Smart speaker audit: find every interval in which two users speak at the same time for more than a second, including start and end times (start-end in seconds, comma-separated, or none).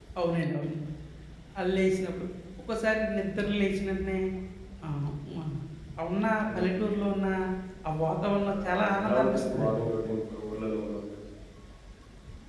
8.5-9.8